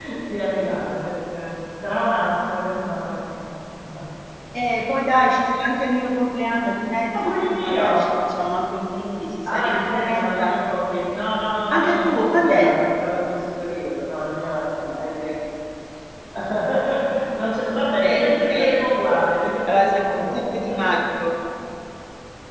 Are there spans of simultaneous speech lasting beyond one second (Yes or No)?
Yes